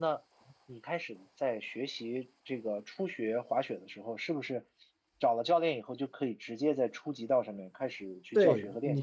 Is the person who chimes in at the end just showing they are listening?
No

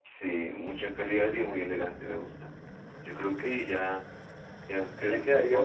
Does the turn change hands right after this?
Yes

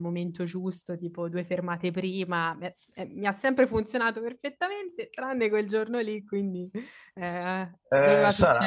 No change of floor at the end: No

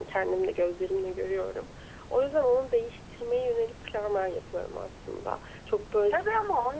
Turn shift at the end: Yes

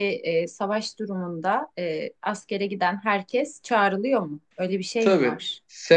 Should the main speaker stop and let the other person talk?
Yes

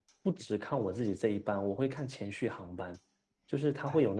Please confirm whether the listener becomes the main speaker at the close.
No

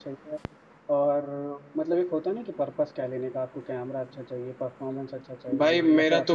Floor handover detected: Yes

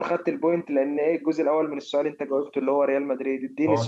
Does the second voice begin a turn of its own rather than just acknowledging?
Yes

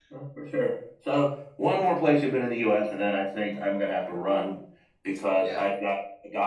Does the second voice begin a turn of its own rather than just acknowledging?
No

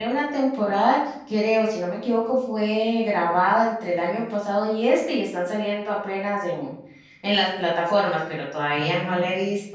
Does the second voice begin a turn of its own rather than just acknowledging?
No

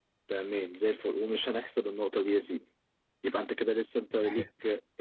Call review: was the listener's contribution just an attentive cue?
Yes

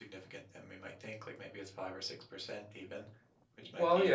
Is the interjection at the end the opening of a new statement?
Yes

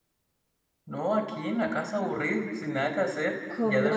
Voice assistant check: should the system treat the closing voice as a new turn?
Yes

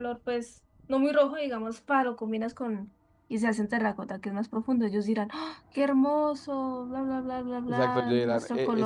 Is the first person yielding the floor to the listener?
Yes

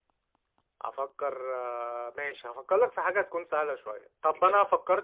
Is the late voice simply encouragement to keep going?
Yes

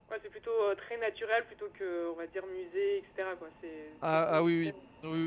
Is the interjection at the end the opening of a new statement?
Yes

